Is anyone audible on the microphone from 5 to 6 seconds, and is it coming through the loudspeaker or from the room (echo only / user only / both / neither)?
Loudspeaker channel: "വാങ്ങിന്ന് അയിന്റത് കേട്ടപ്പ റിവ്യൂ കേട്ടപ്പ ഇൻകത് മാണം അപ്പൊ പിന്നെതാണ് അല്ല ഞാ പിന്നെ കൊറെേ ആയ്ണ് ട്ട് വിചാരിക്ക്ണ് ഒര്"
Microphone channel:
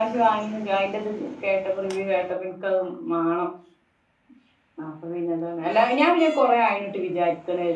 echo only